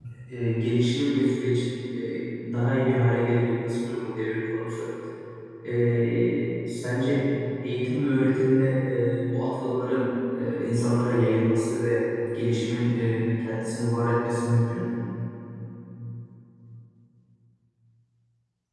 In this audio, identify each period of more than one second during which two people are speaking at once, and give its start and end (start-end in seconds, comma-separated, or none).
none